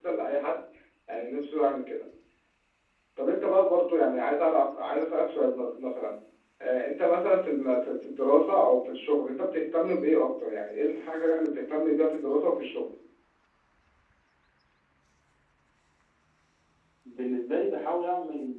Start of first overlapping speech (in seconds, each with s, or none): none